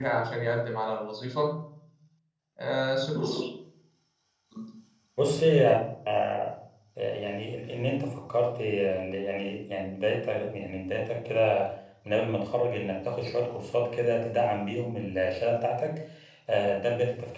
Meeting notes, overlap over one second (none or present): none